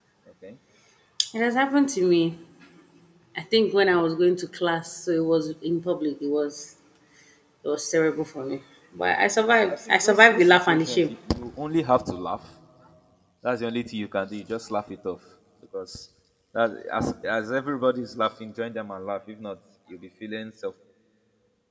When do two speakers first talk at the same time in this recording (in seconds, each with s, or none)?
9.7 s